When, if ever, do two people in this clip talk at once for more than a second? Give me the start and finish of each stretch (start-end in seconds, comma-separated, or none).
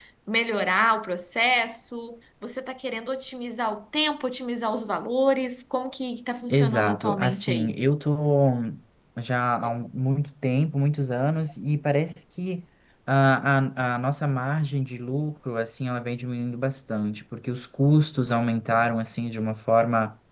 6.5-7.7